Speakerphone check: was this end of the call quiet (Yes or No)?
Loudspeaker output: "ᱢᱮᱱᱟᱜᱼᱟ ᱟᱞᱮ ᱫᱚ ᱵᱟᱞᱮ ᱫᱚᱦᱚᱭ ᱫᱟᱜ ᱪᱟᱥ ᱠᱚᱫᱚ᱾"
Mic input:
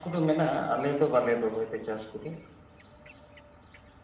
Yes